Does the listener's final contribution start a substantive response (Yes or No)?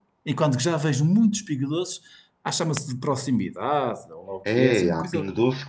Yes